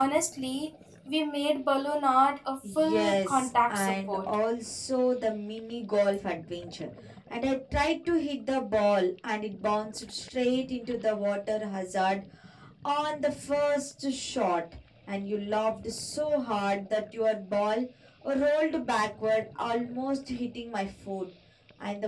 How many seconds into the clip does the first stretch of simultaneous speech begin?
2.6 s

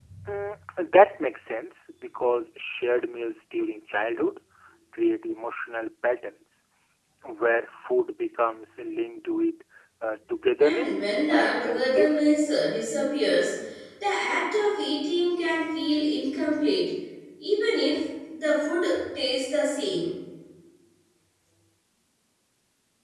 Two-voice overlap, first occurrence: 10.6 s

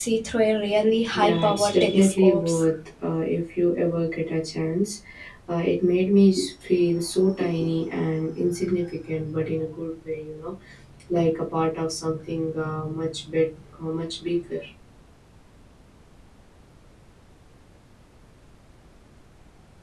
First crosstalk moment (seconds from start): 1.1 s

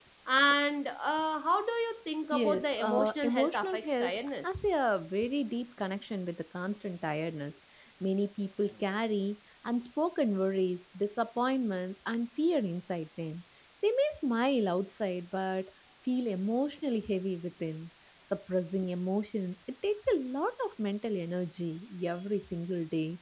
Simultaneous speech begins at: 2.3 s

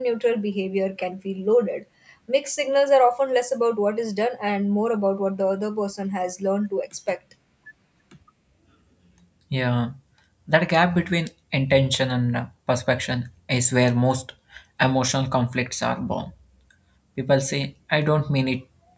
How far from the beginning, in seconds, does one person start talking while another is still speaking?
none

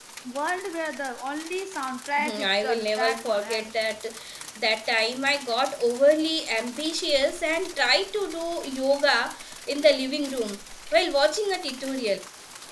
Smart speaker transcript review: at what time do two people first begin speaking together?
2.2 s

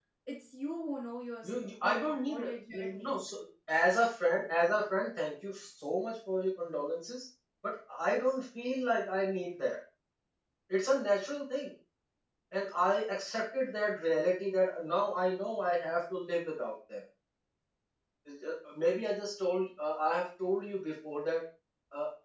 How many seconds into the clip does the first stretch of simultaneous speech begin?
1.4 s

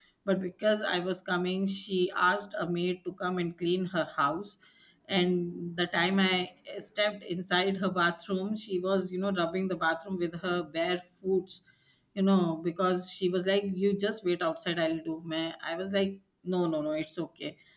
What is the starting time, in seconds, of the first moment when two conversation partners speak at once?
none

